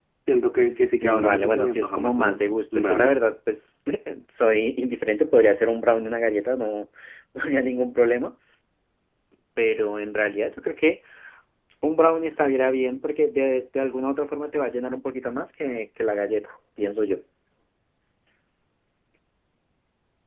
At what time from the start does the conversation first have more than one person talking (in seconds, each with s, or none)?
1.0 s